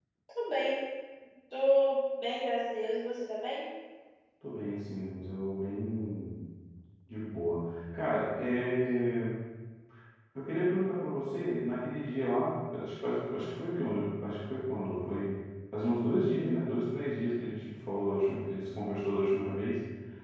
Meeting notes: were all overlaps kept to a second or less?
Yes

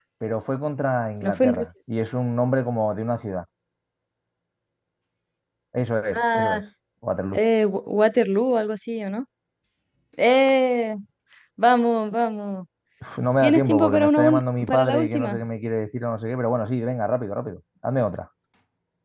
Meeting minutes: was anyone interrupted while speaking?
Yes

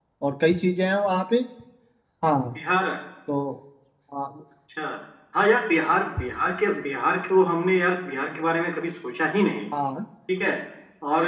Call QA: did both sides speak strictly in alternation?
Yes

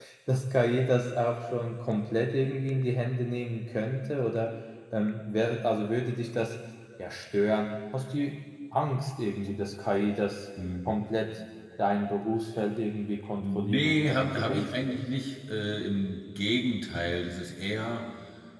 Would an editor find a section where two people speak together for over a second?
Yes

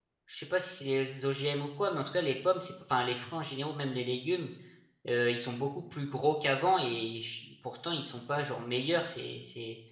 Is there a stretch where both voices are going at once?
No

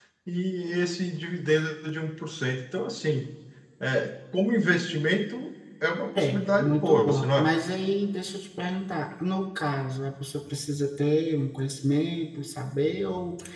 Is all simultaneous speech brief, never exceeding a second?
No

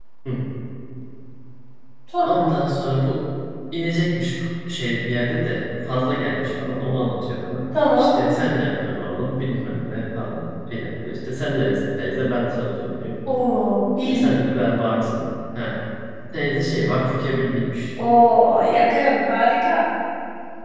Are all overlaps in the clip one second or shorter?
Yes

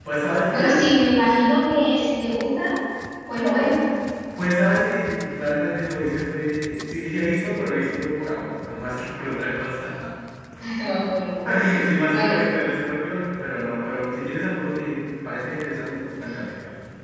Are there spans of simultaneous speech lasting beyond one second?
No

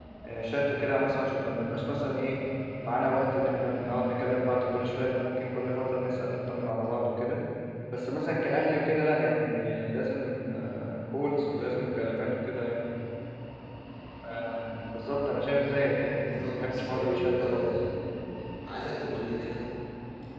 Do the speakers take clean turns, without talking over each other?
No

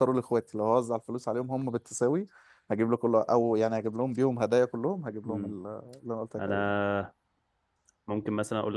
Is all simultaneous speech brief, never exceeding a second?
Yes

